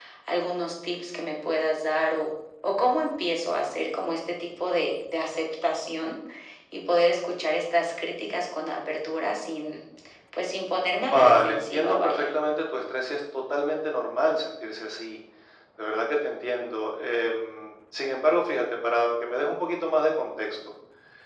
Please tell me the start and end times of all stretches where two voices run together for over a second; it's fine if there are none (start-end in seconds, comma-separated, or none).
11.0-12.3